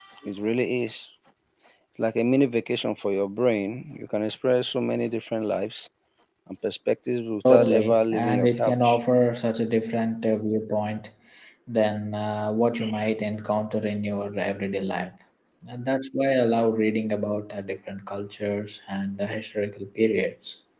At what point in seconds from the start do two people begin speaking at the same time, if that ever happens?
7.4 s

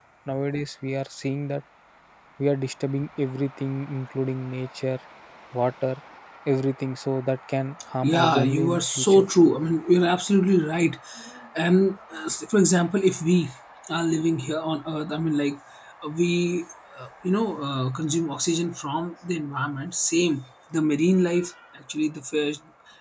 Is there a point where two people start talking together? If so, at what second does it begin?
8.0 s

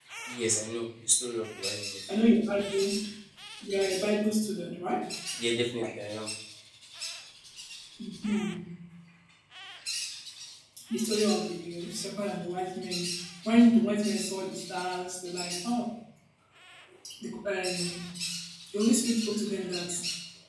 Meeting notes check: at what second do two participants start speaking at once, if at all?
none

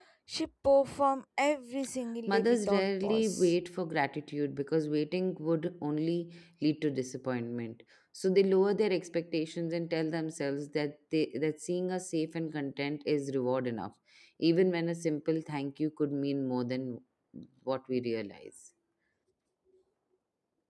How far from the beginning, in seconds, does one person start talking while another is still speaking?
2.3 s

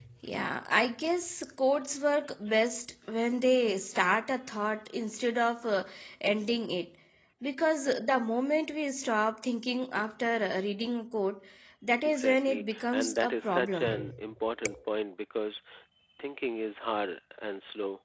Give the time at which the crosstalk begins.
12.0 s

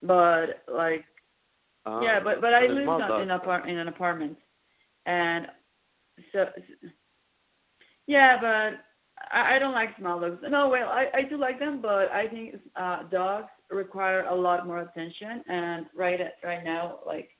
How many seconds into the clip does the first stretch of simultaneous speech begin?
2.0 s

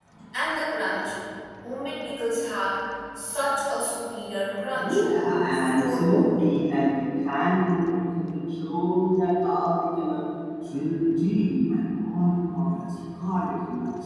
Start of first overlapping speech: 4.8 s

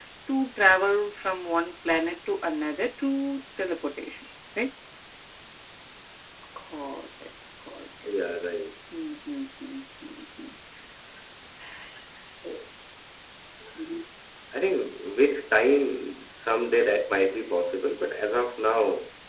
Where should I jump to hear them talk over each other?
none

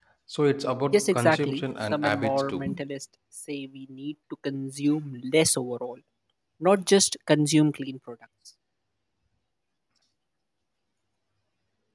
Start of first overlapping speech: 0.9 s

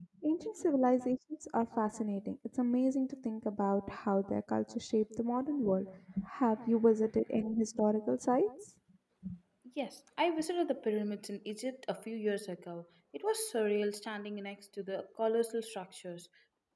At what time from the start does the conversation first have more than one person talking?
none

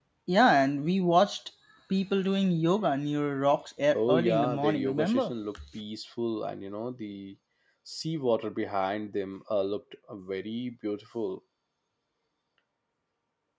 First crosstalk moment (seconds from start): 3.9 s

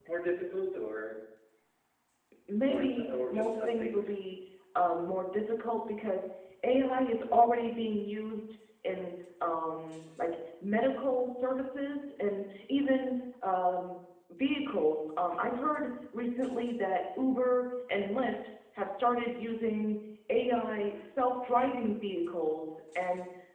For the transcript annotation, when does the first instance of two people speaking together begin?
2.7 s

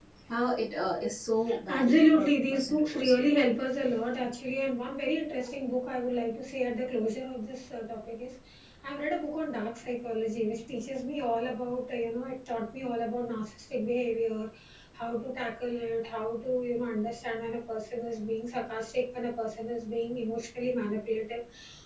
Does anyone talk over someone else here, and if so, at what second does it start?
1.5 s

